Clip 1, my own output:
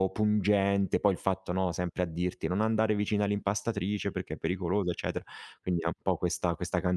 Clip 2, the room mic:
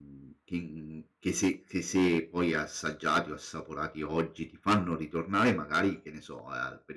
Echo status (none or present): none